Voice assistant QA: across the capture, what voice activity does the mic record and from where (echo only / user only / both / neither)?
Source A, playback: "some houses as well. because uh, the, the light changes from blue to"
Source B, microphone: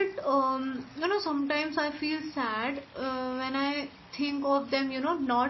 user only